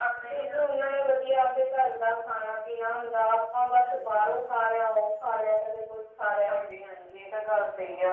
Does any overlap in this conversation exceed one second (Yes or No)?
No